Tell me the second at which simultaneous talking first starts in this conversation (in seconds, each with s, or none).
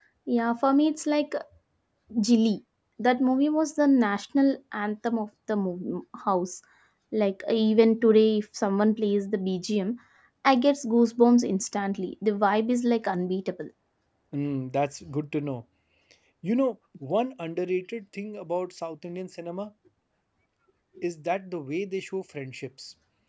none